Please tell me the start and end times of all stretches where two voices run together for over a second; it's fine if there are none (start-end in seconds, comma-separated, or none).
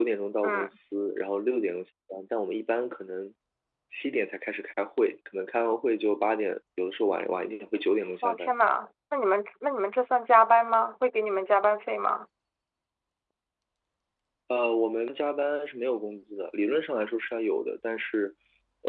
none